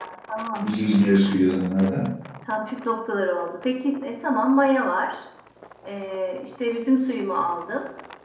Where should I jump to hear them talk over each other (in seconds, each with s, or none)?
none